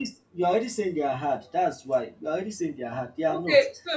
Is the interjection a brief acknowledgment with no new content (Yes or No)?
No